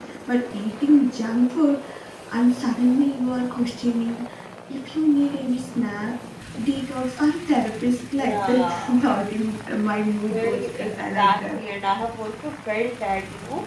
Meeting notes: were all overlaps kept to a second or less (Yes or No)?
No